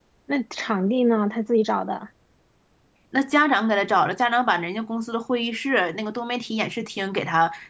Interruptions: none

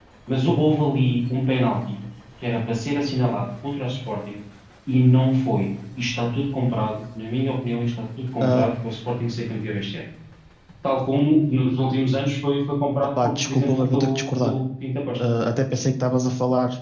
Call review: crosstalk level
present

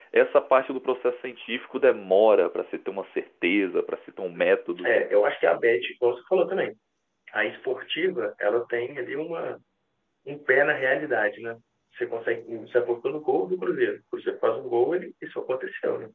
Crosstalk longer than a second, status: none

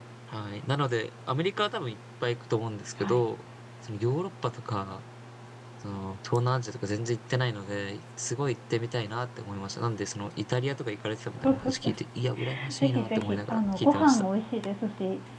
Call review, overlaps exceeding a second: present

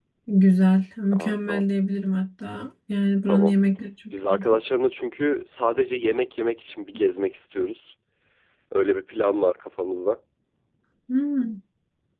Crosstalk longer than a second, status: none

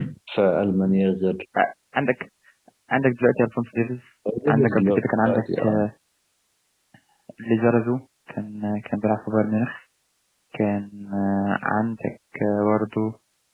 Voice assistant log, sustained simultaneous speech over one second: present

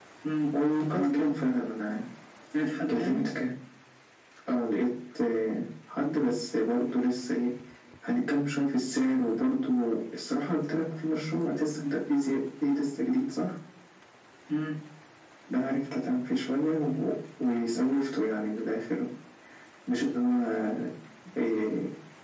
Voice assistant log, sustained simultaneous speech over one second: none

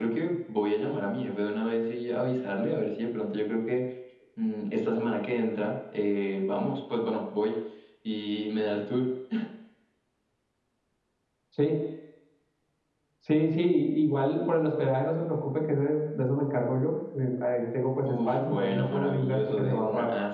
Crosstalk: present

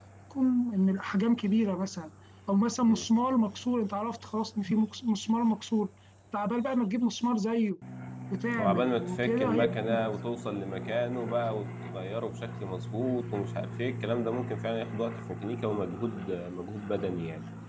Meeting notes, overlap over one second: present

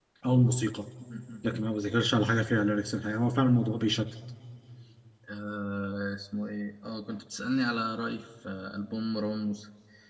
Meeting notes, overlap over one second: none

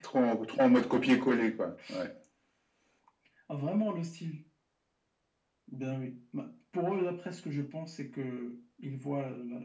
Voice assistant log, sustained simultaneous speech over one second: none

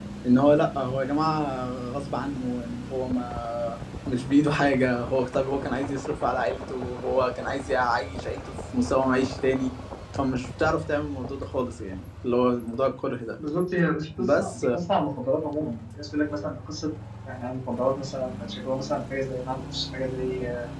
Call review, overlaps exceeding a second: none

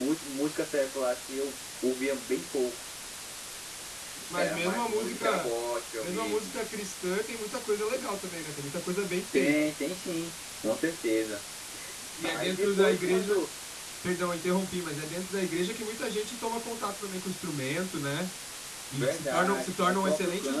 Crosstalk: present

